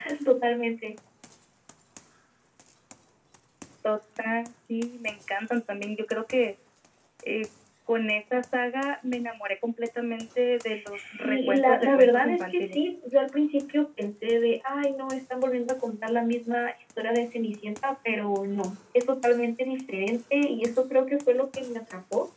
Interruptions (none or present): present